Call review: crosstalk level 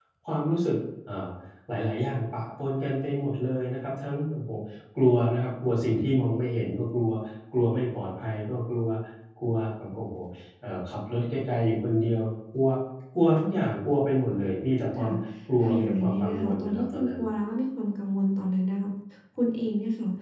present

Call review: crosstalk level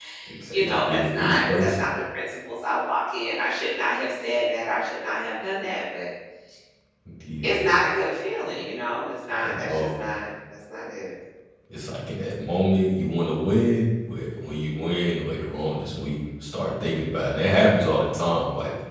present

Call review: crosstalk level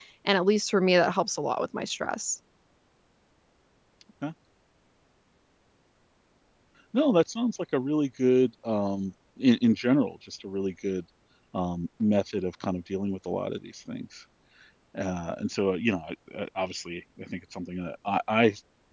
none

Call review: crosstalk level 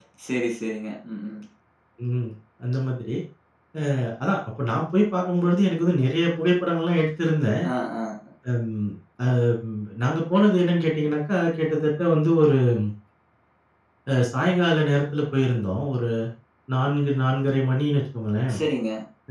none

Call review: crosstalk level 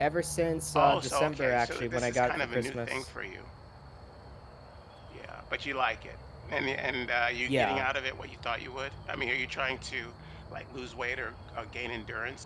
present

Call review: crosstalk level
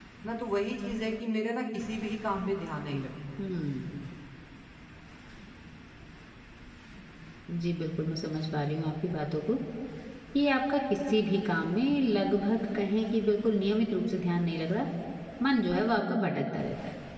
none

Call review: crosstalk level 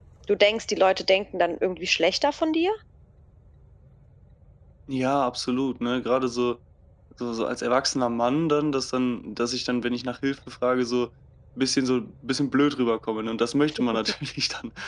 none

